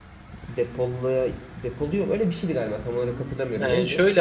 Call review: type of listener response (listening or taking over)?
taking over